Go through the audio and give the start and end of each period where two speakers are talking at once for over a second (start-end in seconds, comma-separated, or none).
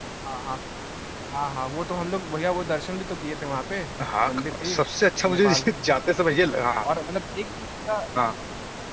none